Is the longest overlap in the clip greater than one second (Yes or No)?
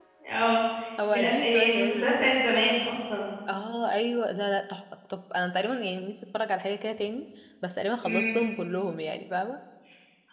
Yes